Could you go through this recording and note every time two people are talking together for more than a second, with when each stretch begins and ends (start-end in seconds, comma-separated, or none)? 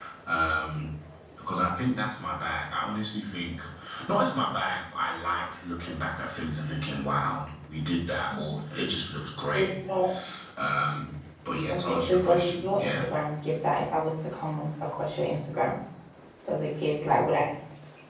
11.7-13.0